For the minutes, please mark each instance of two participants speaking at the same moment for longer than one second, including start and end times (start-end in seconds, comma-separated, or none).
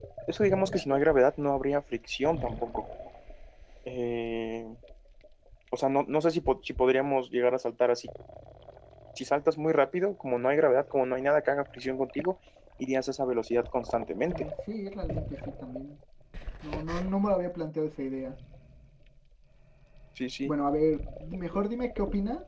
none